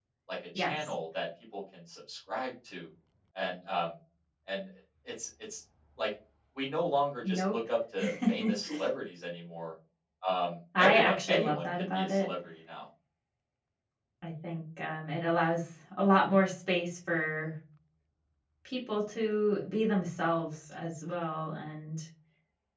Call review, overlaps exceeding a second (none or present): present